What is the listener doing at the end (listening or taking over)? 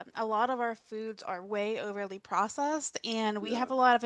listening